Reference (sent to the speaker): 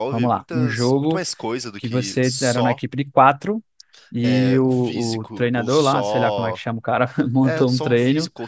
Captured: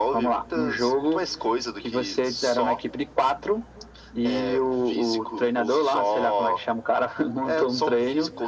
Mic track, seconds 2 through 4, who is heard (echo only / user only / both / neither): echo only